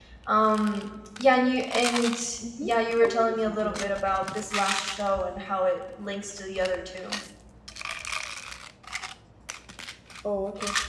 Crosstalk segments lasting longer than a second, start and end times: 2.6-3.9

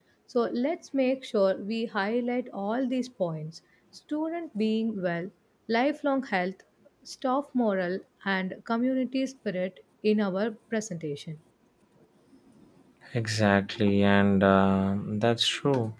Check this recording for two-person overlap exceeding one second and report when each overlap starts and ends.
none

